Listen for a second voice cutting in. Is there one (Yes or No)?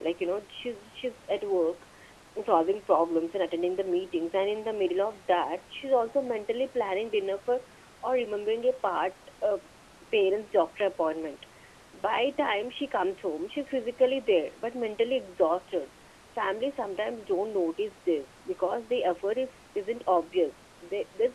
No